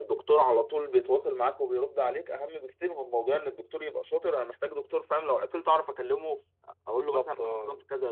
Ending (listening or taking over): taking over